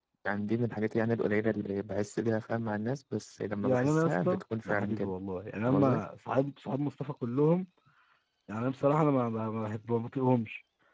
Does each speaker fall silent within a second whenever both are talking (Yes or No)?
No